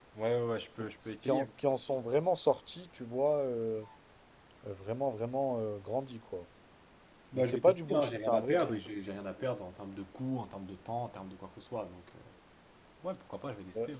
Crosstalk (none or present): present